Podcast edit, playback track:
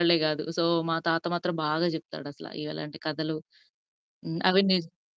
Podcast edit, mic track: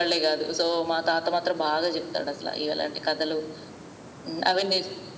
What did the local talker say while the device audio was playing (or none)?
none